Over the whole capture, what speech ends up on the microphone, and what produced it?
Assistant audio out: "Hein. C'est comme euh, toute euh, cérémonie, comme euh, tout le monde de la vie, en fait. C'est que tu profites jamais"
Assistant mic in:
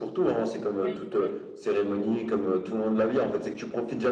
both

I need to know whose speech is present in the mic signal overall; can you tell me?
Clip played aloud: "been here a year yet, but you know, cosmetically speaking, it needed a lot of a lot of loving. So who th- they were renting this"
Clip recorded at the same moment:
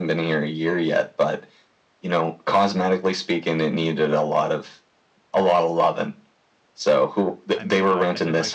both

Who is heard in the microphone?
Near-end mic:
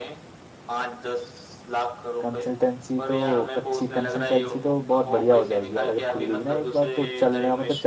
both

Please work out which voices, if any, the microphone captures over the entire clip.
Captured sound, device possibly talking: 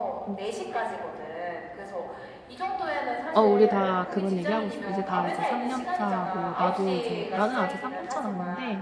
both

